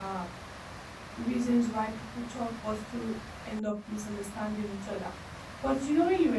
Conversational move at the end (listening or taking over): listening